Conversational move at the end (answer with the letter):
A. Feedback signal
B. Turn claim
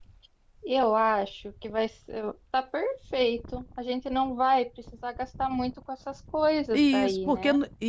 B